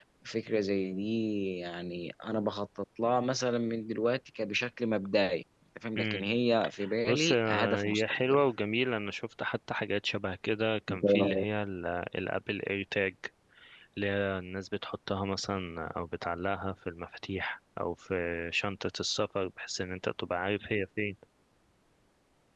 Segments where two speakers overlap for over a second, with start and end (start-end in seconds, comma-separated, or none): 7.1-8.4